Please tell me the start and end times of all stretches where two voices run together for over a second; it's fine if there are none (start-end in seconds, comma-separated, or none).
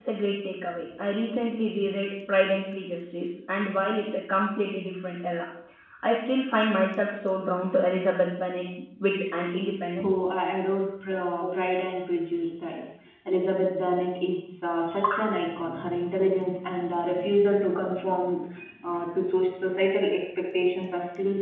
none